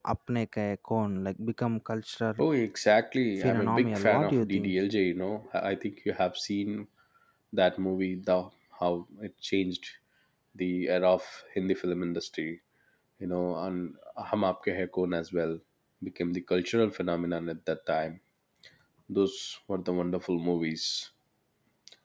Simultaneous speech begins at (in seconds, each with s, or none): 3.4 s